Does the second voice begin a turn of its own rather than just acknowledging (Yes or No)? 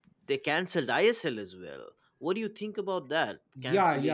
Yes